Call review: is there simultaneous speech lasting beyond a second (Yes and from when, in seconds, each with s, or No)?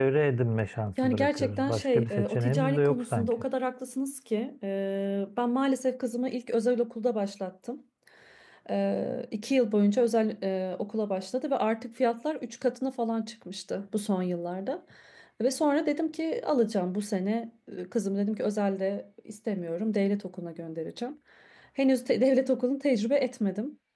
Yes, from 1.0 s